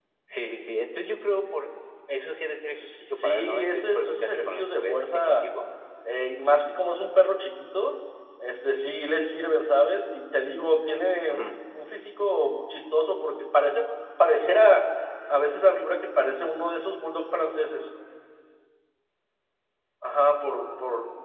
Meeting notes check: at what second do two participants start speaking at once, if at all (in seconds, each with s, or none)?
2.7 s